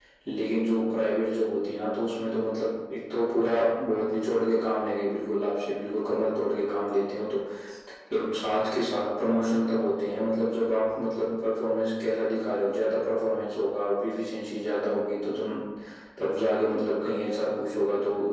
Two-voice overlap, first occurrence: none

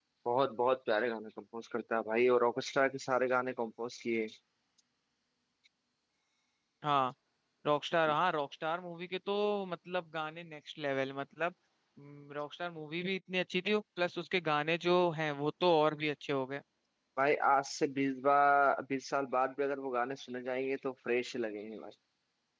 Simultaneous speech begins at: none

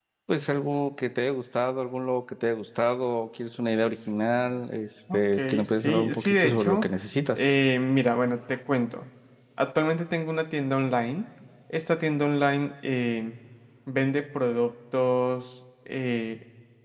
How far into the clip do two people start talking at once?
5.1 s

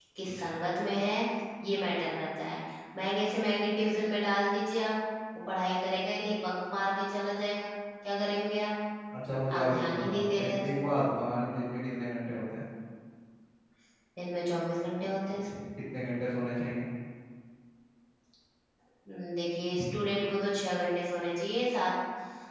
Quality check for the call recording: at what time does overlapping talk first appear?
9.5 s

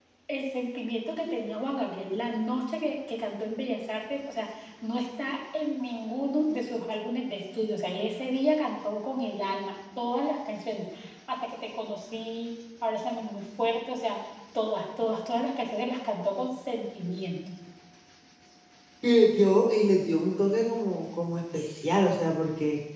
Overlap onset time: none

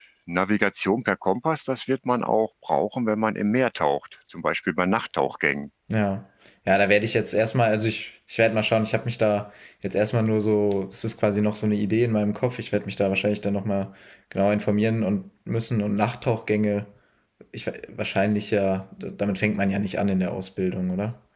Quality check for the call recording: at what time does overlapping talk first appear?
none

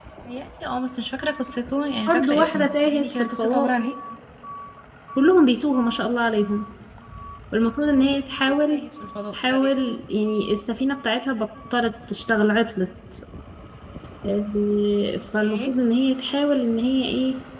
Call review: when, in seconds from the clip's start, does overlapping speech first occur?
2.1 s

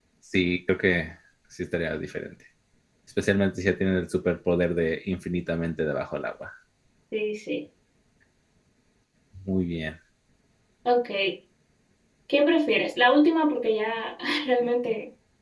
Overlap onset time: none

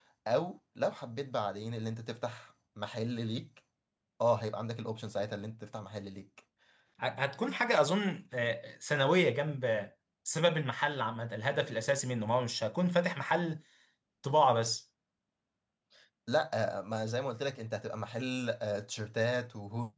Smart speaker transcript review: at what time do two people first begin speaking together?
none

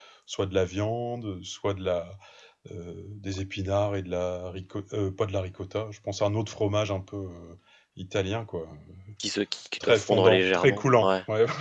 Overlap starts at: 9.8 s

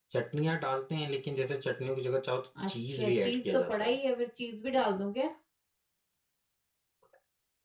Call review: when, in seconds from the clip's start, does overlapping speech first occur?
2.5 s

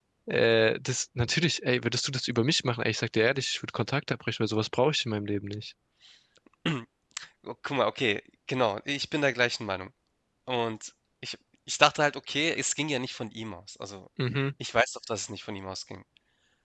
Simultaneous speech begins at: none

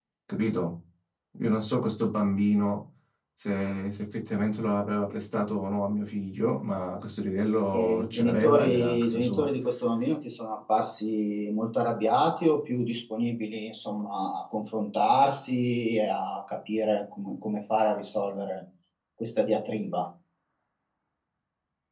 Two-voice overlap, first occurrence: 7.7 s

